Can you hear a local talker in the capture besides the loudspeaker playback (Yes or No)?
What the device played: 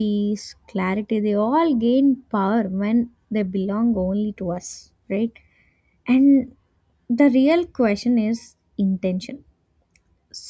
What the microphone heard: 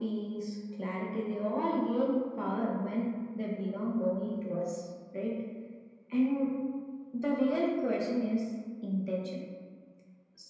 No